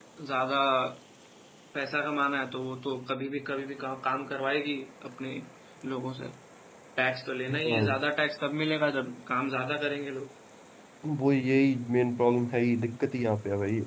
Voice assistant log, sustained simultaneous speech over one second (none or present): none